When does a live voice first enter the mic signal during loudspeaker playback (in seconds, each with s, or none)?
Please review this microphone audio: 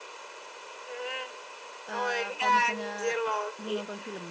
1.9 s